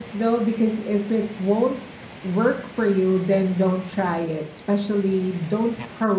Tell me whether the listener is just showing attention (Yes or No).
Yes